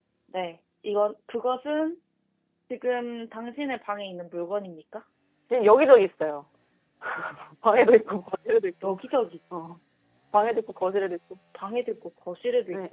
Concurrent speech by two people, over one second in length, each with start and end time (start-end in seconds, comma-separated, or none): none